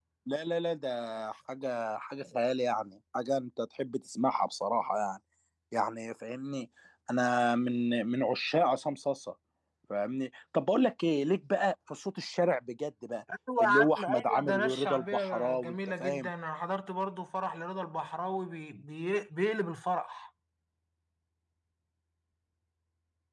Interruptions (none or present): present